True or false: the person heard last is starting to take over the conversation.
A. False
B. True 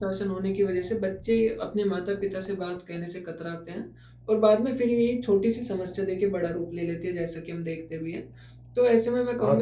A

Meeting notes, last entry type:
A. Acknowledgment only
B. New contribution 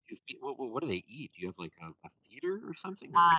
B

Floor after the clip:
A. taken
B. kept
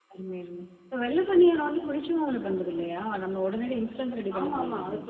A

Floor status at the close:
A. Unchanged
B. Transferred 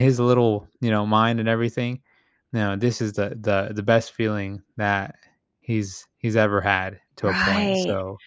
B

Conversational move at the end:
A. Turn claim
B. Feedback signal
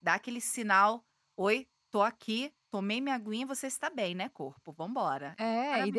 A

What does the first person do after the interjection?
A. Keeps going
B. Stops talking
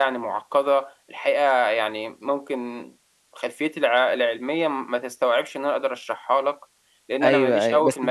B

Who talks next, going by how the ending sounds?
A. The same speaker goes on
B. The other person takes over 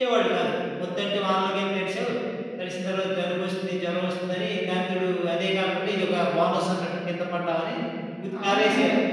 B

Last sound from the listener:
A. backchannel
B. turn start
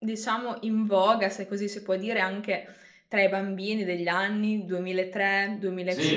B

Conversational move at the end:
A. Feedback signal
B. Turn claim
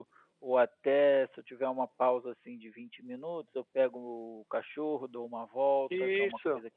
A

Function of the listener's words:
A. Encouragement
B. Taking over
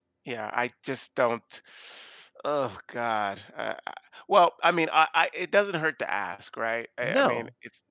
B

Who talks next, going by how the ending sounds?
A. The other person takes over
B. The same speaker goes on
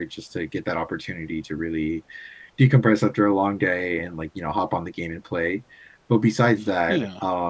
B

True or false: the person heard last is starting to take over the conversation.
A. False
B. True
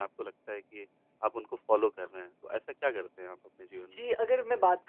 B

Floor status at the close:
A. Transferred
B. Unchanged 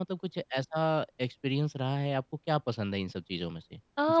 A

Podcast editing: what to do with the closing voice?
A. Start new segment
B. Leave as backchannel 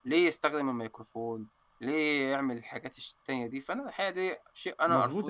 A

